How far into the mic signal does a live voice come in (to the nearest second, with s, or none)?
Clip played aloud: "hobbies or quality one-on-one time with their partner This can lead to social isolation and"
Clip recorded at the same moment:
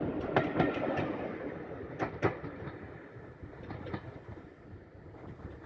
none